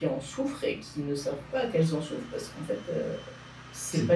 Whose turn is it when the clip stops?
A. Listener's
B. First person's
A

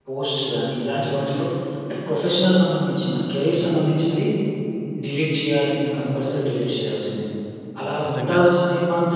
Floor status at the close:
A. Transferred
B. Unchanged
B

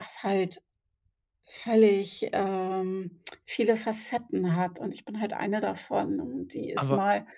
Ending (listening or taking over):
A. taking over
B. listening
B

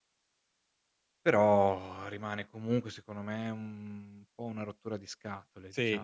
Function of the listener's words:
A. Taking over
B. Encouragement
A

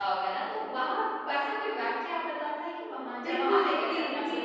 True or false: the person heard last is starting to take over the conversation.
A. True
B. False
A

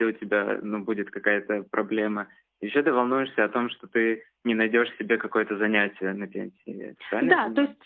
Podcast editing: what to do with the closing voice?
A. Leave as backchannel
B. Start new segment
B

